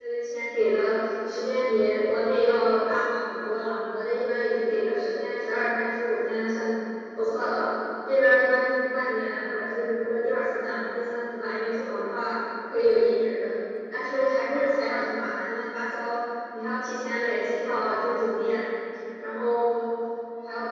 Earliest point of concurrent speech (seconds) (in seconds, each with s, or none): none